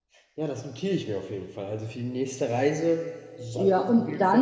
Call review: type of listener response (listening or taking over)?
taking over